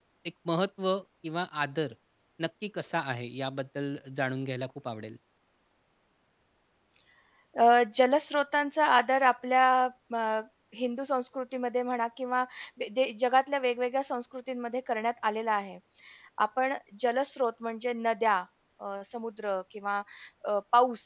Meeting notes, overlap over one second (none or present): none